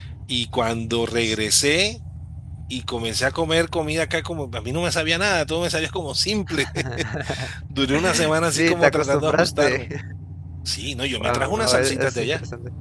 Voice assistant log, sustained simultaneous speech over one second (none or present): present